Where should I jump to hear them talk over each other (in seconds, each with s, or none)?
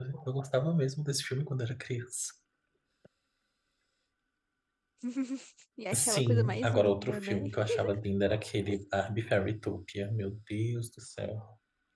5.9 s